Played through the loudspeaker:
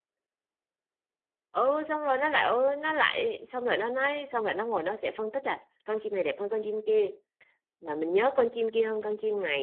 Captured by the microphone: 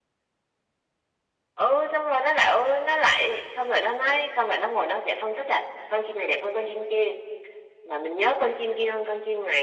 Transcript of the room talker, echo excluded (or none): none